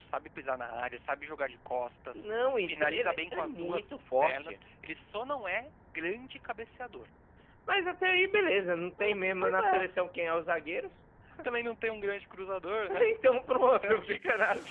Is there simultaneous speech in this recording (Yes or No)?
Yes